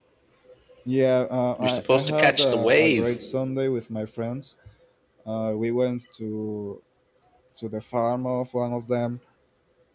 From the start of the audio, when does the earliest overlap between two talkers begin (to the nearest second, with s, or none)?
2 s